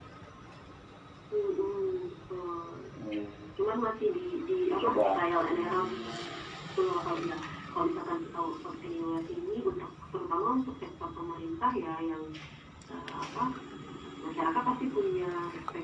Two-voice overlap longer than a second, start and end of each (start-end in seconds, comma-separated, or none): none